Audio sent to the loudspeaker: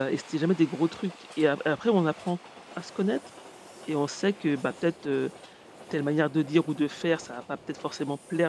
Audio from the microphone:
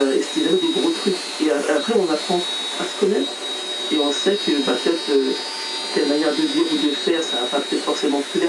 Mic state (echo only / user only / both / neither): echo only